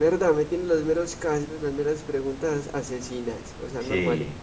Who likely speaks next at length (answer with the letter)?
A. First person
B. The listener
B